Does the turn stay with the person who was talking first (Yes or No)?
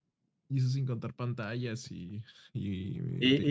No